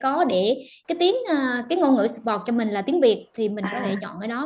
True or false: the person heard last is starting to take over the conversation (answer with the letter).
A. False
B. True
A